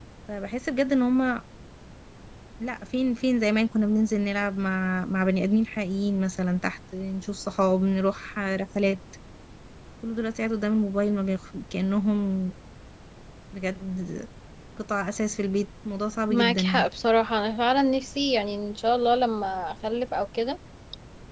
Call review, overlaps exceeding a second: none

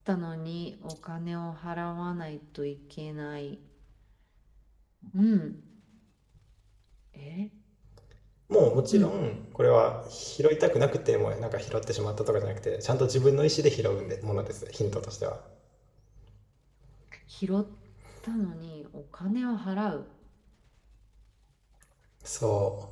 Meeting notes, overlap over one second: none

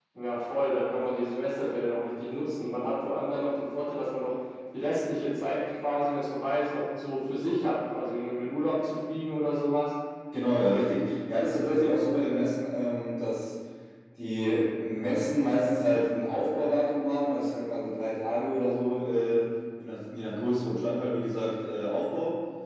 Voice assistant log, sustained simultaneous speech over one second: none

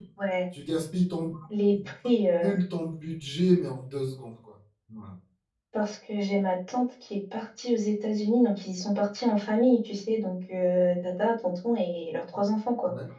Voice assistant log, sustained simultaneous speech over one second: none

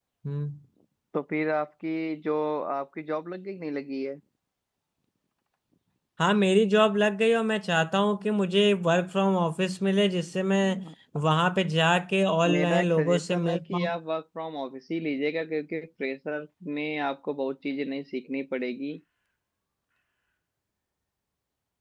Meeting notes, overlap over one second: present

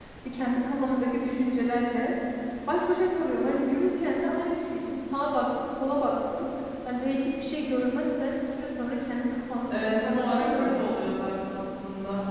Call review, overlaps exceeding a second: present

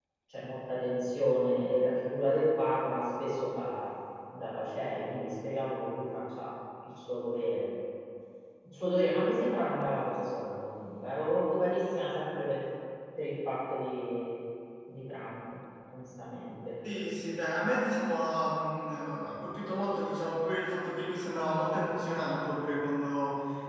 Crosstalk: none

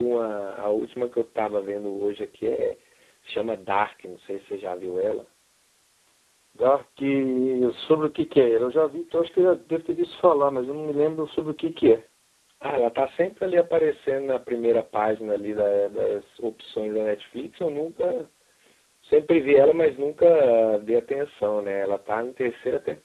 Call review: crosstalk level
none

